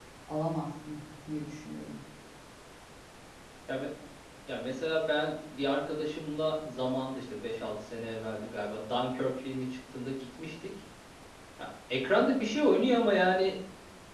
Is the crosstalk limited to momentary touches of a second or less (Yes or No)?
Yes